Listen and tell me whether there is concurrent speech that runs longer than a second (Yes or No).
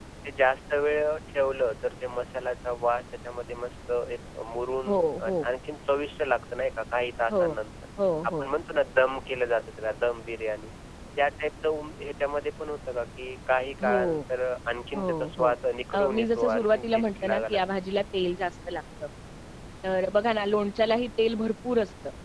Yes